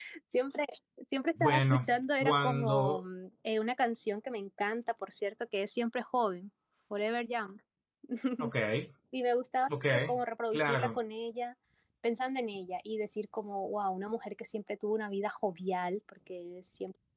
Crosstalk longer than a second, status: present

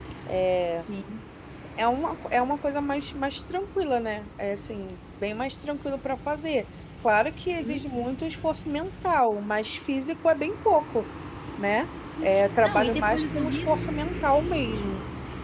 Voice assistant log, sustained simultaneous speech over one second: present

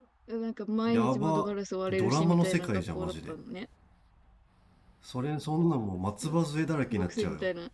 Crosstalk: present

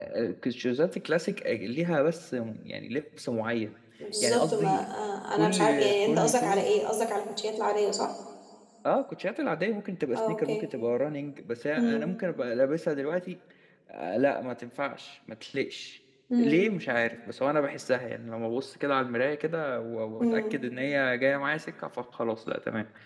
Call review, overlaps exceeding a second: present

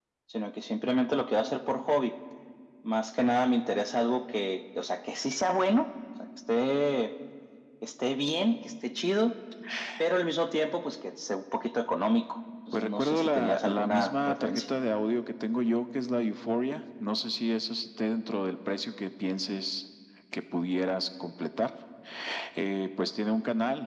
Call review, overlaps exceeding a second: present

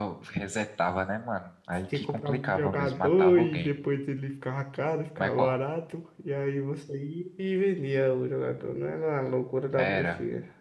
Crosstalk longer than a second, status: present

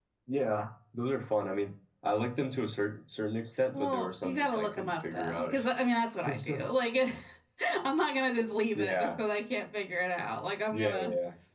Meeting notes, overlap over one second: present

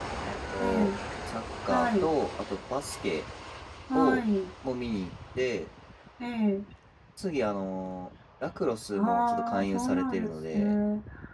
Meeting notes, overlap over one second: present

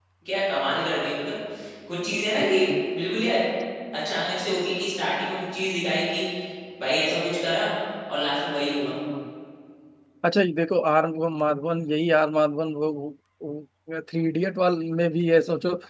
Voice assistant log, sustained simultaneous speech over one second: none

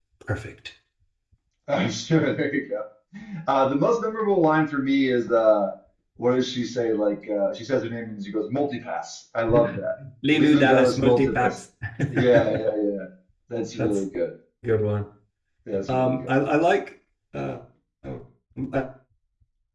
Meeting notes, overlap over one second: present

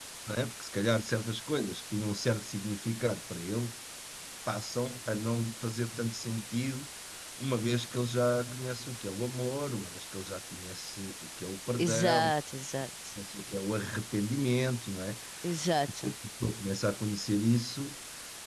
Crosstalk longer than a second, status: none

